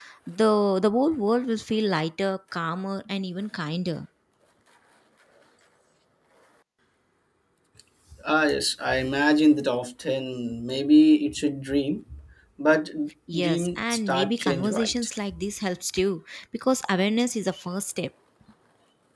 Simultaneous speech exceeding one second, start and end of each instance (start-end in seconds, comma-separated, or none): 13.4-15.1